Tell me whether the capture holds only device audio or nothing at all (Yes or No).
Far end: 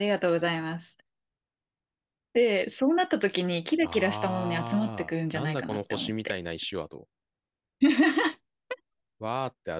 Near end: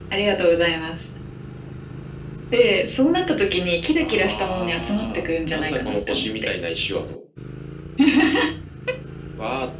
Yes